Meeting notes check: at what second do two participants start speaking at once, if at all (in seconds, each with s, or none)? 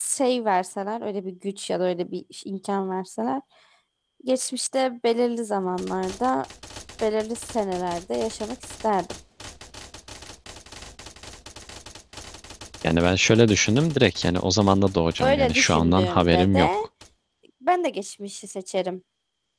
15.2 s